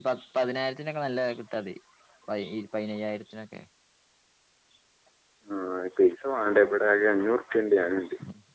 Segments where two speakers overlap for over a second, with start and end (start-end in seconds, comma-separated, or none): none